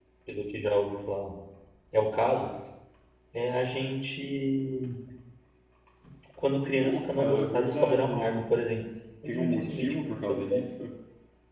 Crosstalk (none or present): present